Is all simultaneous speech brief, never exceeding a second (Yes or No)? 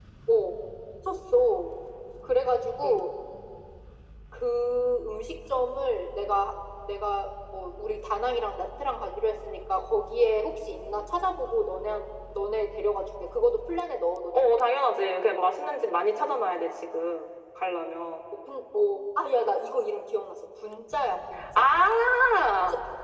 Yes